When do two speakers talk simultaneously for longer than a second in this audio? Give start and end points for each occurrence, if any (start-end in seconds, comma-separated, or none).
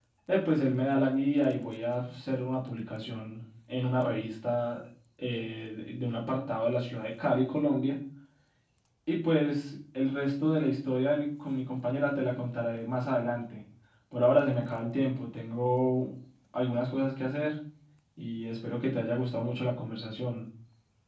none